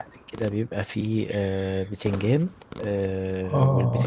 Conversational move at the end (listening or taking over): listening